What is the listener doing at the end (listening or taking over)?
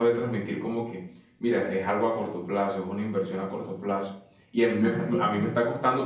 listening